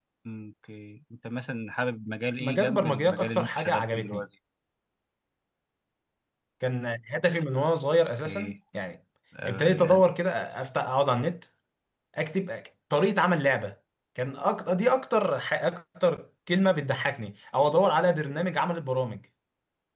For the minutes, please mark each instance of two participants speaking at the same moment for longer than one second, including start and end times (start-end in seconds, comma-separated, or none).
2.4-4.2